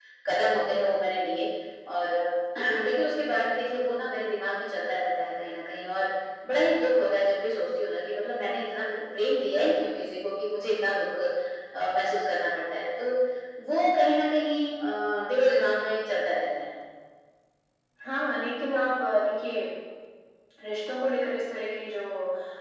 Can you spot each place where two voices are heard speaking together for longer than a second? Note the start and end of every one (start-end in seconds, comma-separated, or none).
none